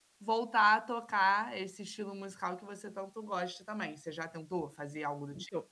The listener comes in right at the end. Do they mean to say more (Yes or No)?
Yes